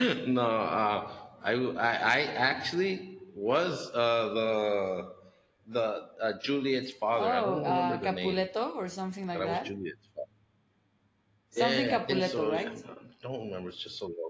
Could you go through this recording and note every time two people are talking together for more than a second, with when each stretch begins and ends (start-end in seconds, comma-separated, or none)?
7.1-8.4, 11.6-12.8